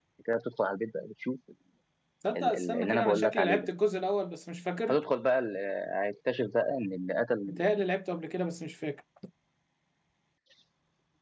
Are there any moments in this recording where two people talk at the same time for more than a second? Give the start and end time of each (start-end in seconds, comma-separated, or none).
2.4-3.7